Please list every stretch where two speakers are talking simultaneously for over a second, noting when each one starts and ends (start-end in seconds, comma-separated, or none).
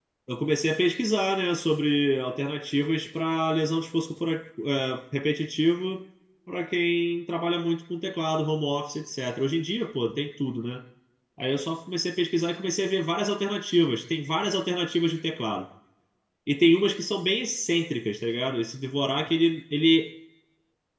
none